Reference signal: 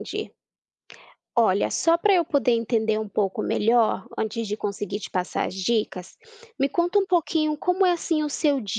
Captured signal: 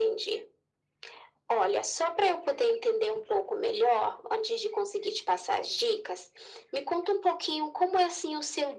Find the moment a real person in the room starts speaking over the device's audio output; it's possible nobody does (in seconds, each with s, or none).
none